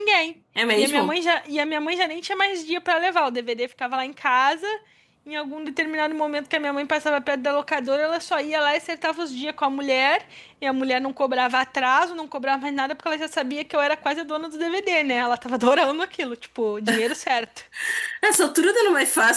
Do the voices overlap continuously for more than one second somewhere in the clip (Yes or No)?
No